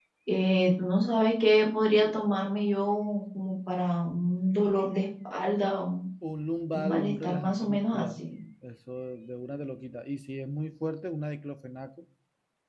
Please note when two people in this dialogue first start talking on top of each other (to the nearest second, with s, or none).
7 s